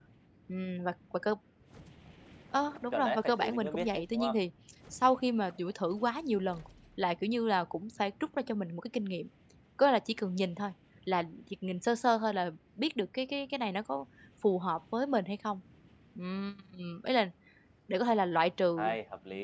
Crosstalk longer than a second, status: present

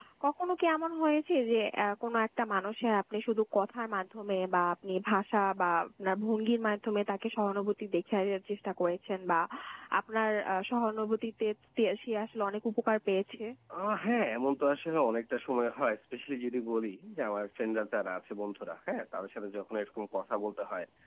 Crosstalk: none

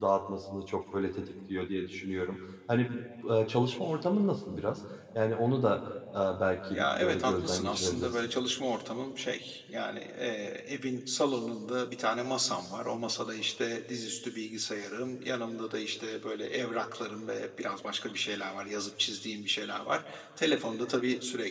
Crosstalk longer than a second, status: present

